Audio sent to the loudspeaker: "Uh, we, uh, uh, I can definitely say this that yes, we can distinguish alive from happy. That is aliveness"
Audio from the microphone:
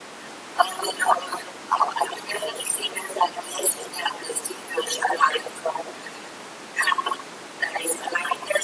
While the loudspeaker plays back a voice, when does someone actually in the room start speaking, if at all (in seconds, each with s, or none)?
none